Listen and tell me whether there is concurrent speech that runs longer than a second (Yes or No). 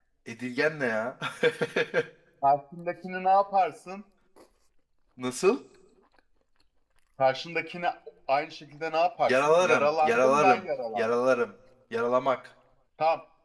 Yes